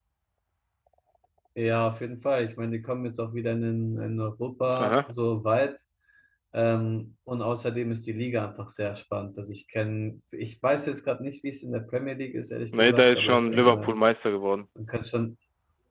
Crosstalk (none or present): present